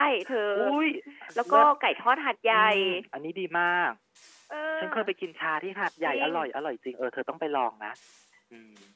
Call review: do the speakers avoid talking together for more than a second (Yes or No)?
Yes